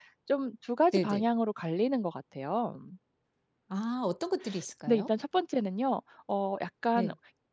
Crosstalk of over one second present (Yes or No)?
No